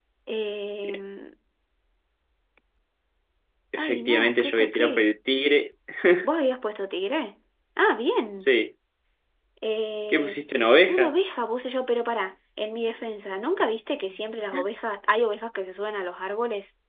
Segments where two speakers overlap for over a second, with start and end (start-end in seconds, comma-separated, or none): 3.8-5.1